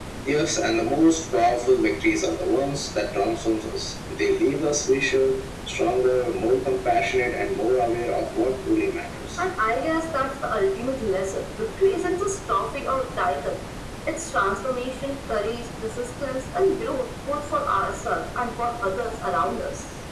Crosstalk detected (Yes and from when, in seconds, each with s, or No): No